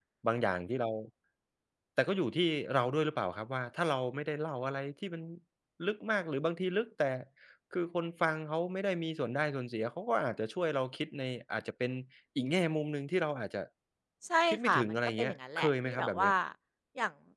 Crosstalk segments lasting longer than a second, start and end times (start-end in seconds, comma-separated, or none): 14.5-16.3